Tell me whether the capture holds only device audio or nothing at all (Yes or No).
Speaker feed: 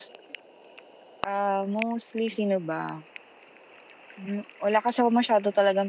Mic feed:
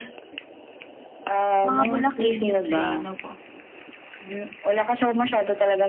No